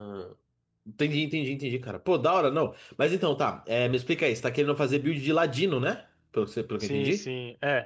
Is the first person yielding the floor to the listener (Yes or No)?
Yes